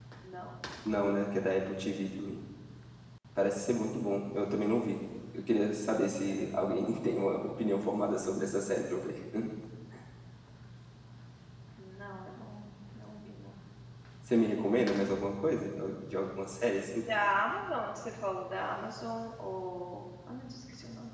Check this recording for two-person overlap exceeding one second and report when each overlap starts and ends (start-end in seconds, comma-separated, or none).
none